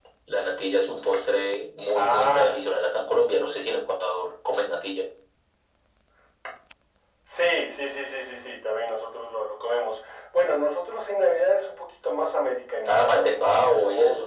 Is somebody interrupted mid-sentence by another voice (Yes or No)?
Yes